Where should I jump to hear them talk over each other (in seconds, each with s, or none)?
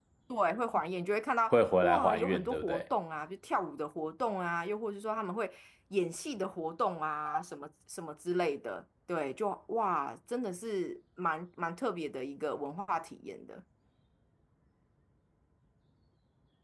1.5 s